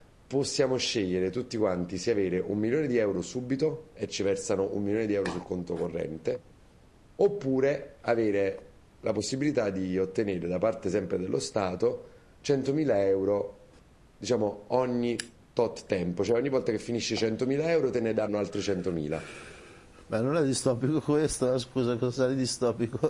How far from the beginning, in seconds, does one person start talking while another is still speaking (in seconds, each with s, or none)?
none